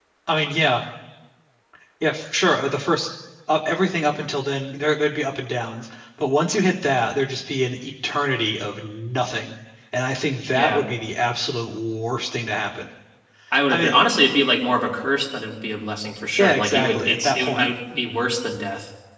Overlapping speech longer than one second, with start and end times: 16.4-17.7

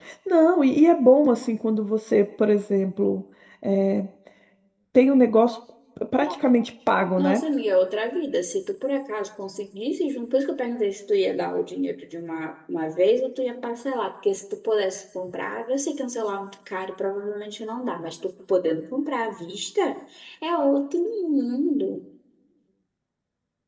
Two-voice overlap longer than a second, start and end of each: none

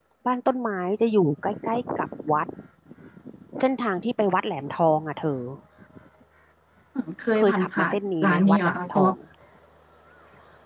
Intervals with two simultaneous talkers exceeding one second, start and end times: 7.4-9.1

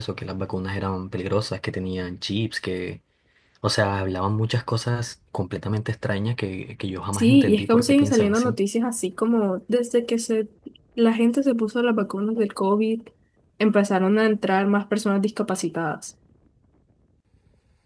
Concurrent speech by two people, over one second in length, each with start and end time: 7.1-8.6

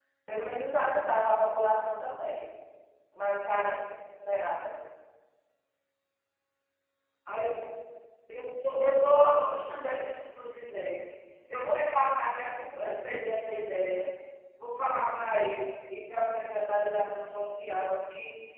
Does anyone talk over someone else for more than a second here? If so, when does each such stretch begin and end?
none

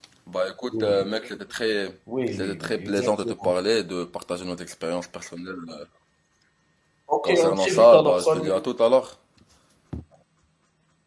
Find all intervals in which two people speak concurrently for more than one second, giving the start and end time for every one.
2.3-3.5, 7.2-8.5

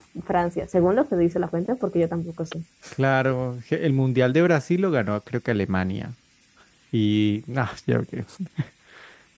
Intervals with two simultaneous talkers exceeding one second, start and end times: none

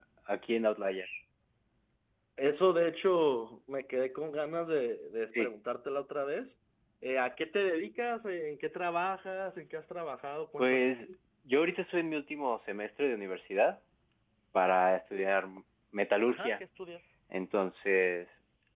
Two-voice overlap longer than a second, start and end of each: none

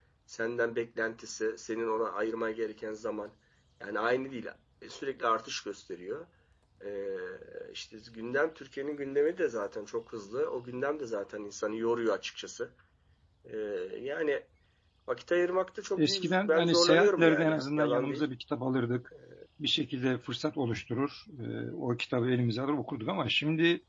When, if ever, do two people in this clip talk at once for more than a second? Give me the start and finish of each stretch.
16.0-18.2

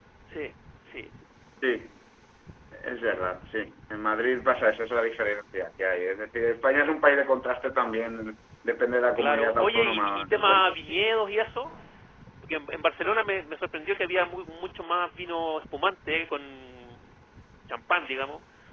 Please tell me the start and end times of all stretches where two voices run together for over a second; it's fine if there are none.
9.2-10.7

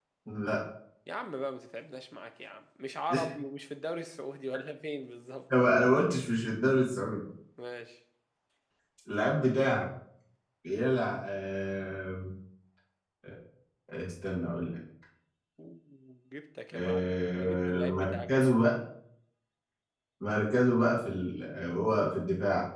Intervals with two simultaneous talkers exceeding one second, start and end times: 16.7-18.6

